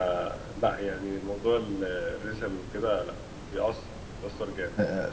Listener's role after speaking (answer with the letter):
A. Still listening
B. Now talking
B